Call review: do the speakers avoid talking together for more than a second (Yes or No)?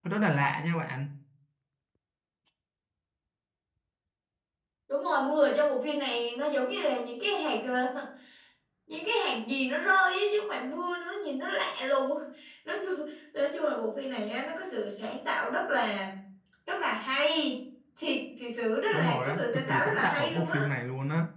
No